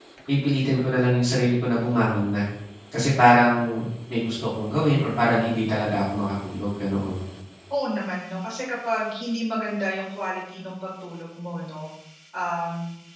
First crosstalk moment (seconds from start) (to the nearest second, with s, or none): none